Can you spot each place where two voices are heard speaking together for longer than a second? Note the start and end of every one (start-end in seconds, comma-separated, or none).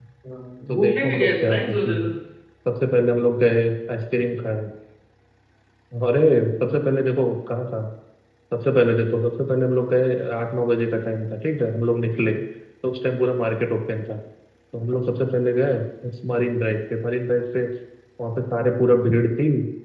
0.7-2.1